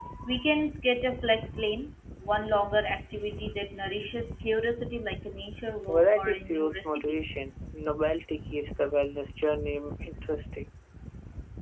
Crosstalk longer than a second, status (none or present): present